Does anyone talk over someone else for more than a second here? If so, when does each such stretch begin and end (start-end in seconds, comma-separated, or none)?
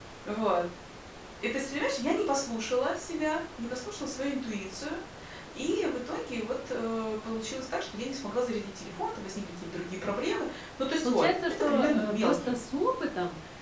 11.0-12.6